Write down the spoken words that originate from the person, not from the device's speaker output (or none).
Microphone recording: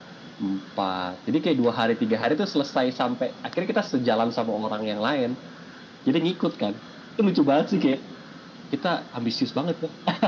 none